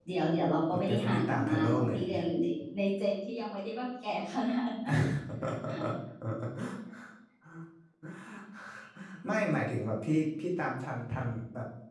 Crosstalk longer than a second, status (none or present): present